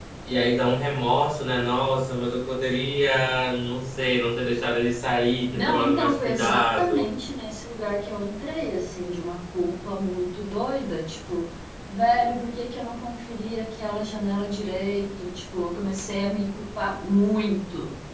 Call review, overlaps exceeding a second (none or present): present